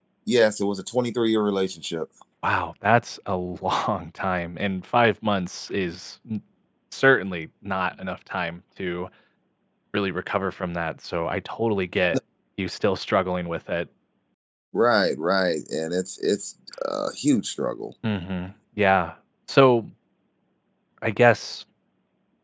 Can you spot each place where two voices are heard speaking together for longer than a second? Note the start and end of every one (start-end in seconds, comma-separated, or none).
none